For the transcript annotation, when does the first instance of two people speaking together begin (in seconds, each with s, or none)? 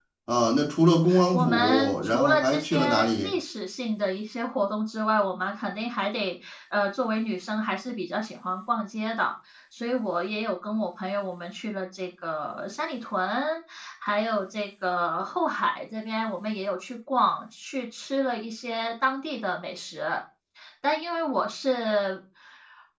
1.1 s